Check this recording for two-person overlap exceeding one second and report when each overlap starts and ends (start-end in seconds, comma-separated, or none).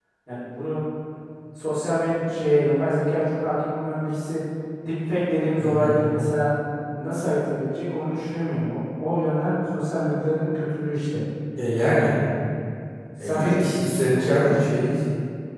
13.2-14.5